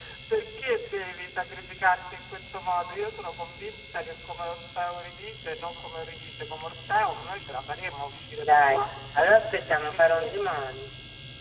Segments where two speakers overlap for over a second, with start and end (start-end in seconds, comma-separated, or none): none